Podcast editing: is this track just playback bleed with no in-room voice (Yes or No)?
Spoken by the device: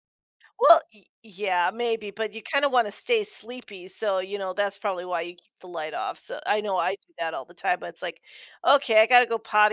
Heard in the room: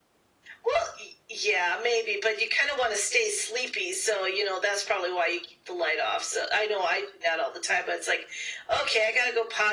Yes